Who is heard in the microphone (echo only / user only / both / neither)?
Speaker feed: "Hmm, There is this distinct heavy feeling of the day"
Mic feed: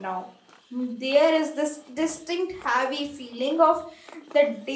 echo only